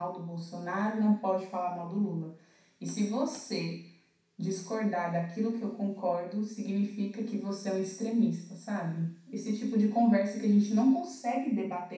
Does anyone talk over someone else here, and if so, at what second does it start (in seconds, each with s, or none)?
none